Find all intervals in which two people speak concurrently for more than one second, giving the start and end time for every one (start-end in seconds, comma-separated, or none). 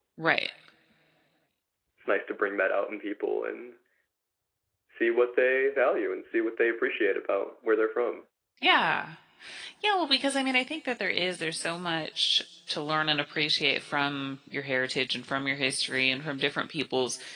none